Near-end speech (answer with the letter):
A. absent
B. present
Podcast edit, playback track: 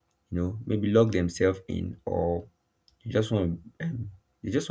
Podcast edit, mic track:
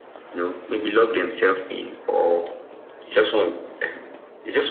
A